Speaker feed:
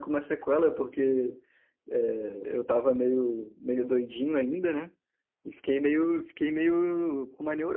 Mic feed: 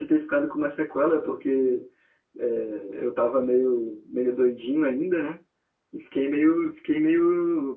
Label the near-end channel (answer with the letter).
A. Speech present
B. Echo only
B